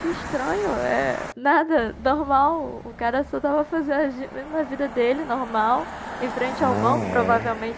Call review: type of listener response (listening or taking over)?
listening